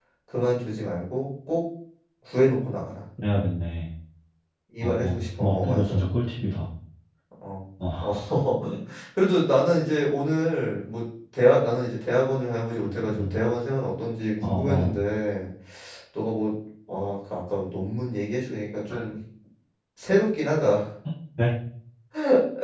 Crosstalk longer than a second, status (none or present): present